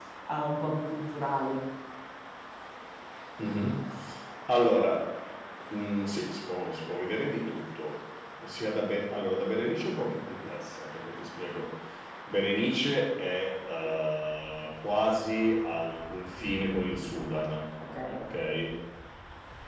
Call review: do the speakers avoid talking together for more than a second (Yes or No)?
Yes